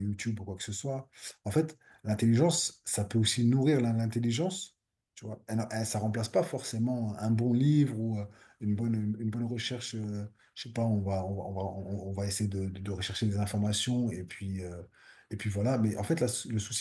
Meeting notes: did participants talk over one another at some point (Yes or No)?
No